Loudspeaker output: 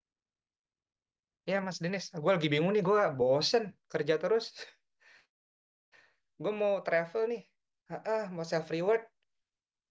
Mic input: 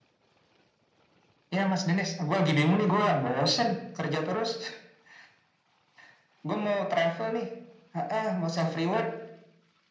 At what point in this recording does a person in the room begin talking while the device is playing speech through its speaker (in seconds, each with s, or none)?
none